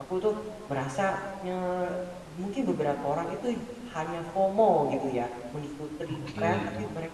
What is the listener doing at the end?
listening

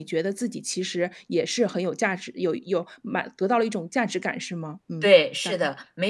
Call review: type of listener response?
taking over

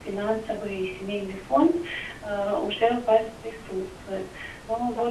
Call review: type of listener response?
listening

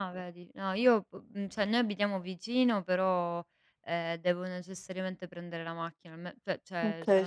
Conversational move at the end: listening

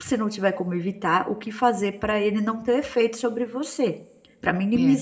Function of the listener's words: listening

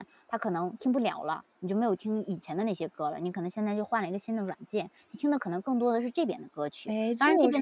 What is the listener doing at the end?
taking over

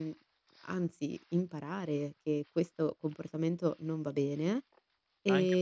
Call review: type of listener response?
taking over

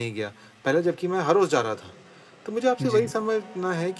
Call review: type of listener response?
listening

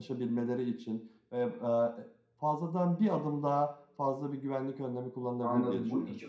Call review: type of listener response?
taking over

